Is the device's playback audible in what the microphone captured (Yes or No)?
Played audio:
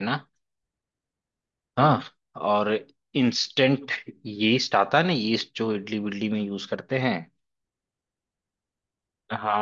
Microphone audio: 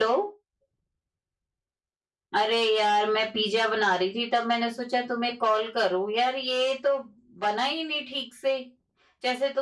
No